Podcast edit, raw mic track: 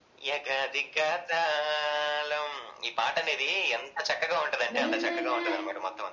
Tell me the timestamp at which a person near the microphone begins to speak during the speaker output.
4.8 s

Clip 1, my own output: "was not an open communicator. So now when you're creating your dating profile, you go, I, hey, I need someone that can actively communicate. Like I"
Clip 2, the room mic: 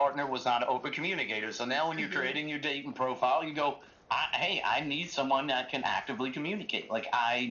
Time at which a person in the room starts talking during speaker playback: 2.0 s

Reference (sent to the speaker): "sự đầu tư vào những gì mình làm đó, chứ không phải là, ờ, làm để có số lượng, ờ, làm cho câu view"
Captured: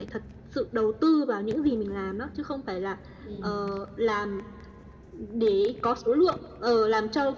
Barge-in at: 3.2 s

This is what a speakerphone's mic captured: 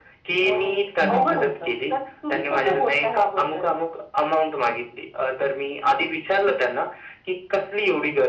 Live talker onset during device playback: 1.0 s

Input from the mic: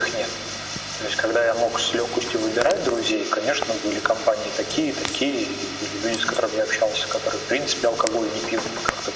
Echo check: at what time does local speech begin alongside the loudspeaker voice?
none

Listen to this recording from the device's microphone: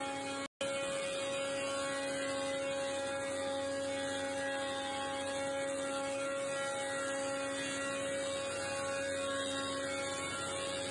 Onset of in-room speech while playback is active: none

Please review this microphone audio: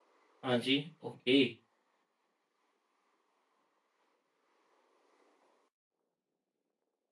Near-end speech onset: 0.4 s

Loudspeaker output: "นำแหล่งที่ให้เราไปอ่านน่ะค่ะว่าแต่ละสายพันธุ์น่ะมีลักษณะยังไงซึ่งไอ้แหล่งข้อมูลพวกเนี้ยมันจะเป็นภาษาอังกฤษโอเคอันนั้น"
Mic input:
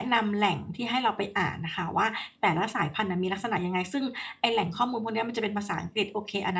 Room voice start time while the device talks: none

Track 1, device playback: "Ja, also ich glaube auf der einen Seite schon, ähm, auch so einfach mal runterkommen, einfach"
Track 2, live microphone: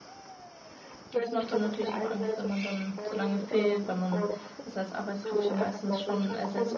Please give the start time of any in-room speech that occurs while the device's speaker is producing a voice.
1.1 s

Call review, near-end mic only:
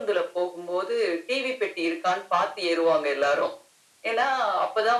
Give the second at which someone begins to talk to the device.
none

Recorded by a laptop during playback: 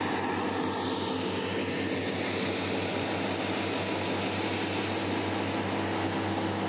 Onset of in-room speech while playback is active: none

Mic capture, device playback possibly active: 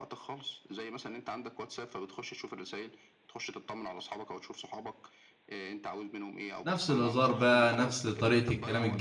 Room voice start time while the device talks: 6.7 s

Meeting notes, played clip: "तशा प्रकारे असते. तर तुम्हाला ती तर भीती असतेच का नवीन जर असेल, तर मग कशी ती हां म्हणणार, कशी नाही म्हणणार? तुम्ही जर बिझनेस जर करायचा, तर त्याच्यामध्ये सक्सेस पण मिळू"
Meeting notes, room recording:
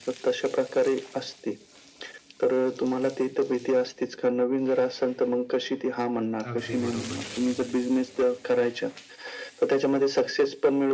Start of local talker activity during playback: 6.5 s

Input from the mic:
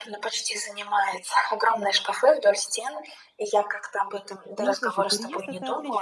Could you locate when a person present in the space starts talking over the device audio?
4.6 s

